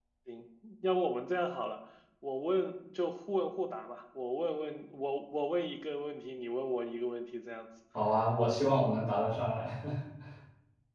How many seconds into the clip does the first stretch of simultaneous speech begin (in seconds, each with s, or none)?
none